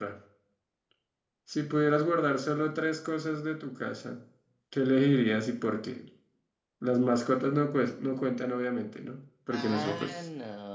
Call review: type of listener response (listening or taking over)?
taking over